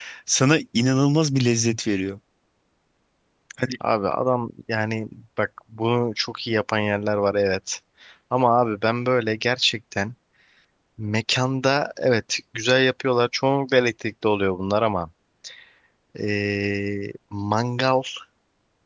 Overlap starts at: none

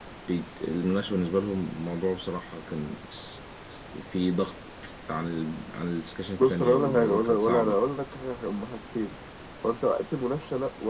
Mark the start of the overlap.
6 s

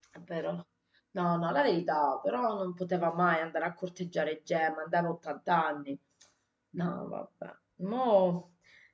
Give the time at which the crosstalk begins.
none

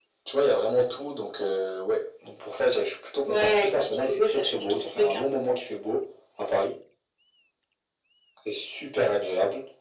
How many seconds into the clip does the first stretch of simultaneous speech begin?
3 s

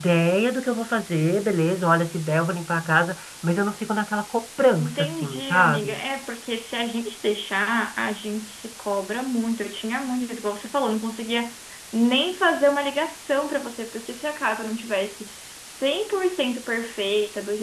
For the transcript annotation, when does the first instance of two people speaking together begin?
5 s

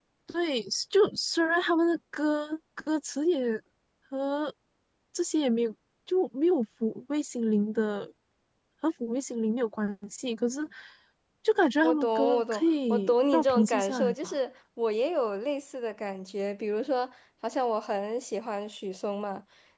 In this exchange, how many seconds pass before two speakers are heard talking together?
12 s

